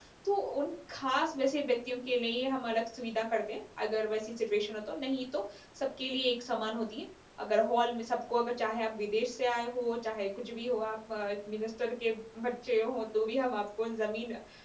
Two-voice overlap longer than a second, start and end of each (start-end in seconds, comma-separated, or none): none